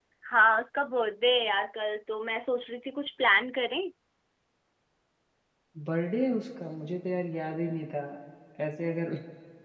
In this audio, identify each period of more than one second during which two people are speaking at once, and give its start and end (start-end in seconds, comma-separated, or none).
none